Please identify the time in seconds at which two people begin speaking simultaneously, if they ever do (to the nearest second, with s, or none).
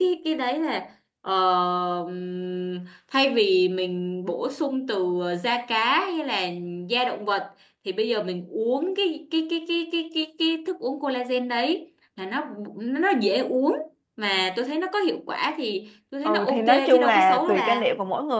16 s